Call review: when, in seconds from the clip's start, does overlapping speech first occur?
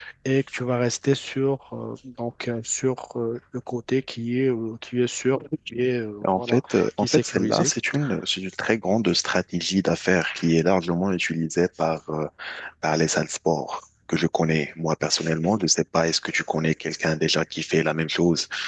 6 s

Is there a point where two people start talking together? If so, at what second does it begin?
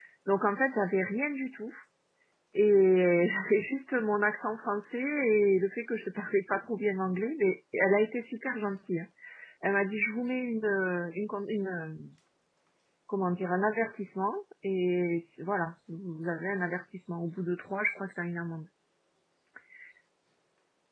none

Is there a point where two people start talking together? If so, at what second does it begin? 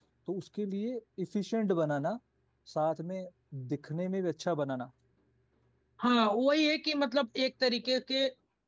none

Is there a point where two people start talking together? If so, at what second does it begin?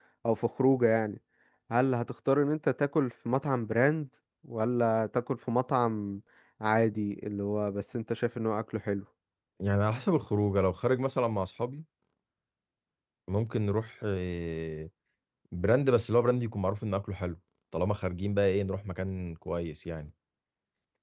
none

